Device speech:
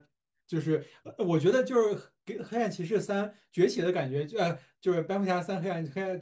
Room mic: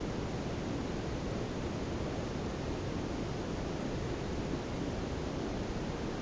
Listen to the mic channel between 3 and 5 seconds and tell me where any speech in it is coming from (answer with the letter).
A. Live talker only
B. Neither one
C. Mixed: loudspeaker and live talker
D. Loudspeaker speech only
B